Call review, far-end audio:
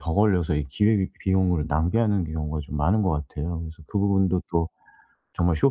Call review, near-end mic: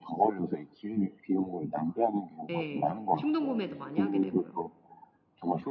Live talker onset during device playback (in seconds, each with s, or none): 2.5 s